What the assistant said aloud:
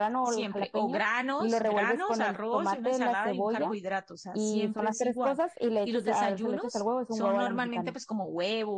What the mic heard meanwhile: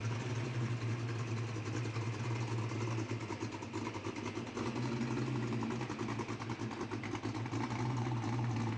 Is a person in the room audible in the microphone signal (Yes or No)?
No